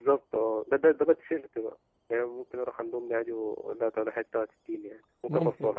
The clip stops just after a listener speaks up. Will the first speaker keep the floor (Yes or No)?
No